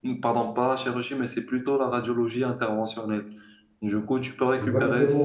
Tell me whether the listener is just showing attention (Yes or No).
No